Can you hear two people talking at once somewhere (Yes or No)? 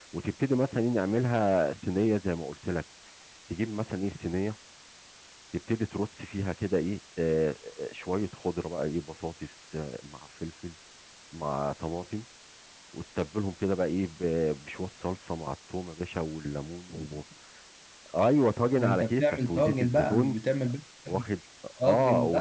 Yes